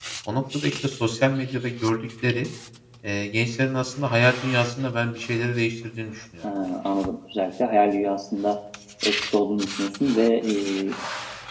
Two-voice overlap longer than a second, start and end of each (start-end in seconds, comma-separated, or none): none